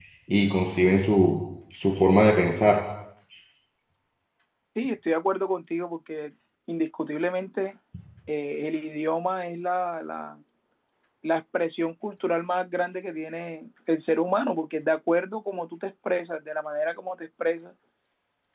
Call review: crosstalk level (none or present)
none